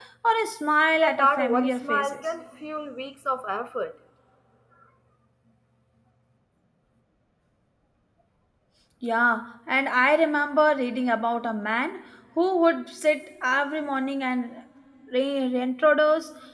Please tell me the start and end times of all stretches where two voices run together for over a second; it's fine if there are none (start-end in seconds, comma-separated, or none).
0.9-2.3